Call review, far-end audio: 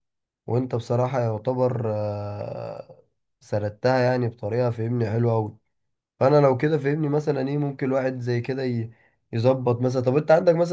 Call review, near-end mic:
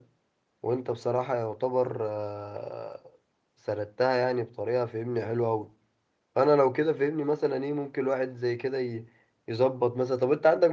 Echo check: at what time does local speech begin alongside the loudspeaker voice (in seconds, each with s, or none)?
none